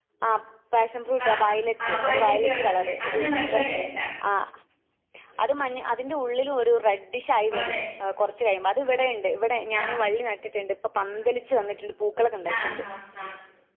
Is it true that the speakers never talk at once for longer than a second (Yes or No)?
No